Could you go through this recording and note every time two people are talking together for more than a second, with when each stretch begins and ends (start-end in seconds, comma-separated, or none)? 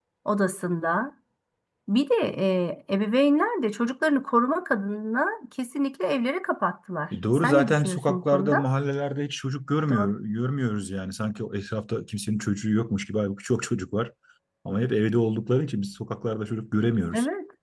7.3-8.7